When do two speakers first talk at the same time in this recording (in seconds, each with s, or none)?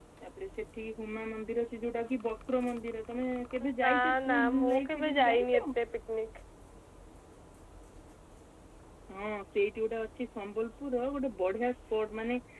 3.8 s